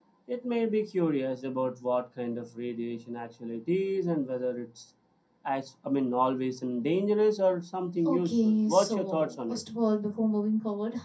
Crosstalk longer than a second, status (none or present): present